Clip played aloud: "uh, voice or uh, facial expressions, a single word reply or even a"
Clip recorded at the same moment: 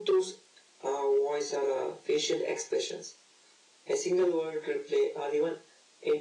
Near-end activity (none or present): none